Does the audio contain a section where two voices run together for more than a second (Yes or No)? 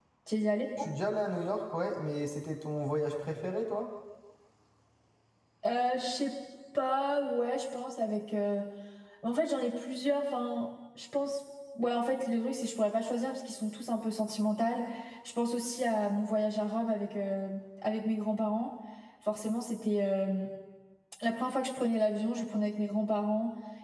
No